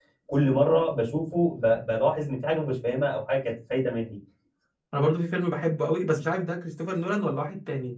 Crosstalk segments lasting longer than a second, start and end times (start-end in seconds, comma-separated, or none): none